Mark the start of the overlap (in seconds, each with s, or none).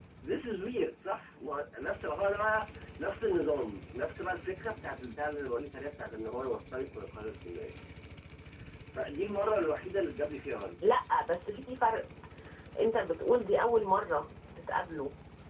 none